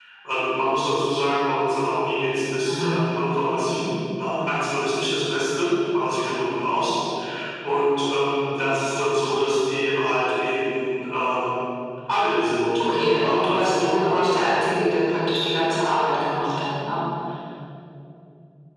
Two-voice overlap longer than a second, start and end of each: 12.8-14.4

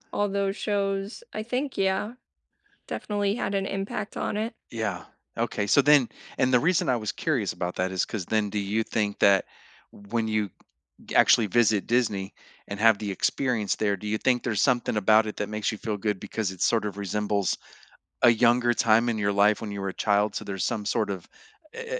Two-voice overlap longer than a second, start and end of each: none

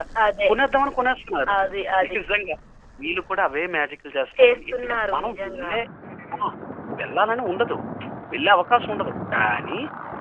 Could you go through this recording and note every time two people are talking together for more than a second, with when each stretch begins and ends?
4.4-5.7

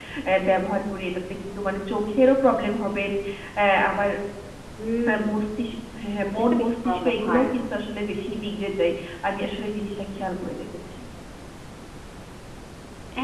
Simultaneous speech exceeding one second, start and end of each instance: 6.2-7.5

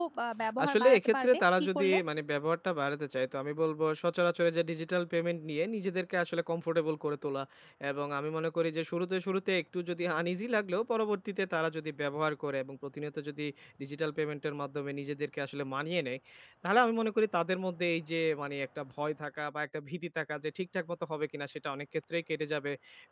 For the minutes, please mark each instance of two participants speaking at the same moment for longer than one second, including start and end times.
0.6-2.0

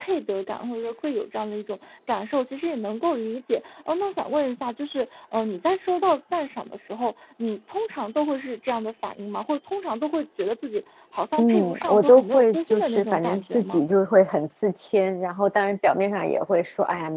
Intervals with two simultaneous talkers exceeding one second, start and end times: 11.4-13.8

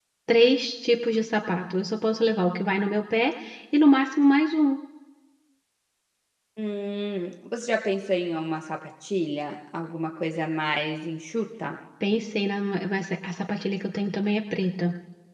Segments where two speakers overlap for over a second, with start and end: none

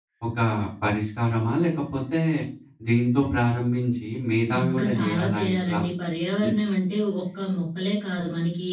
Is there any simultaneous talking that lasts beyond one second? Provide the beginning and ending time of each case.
4.6-5.8

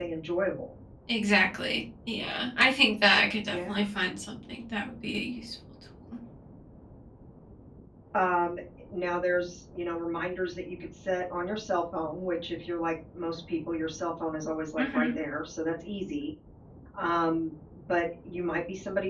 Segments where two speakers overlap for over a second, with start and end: none

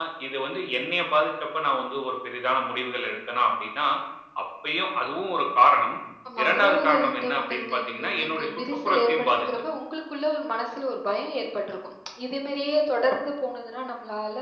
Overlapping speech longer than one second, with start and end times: 6.4-9.5

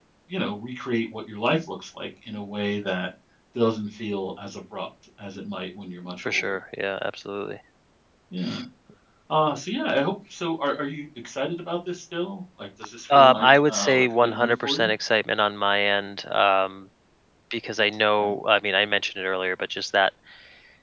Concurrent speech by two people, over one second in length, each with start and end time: 13.1-14.9

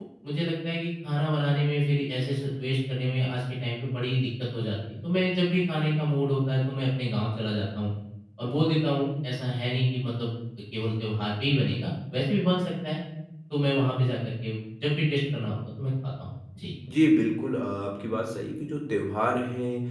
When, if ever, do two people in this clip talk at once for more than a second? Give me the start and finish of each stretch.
none

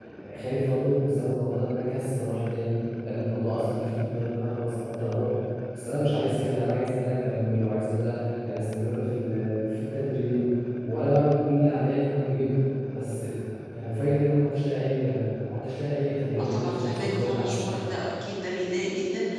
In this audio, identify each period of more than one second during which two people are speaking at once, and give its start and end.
16.4-17.7

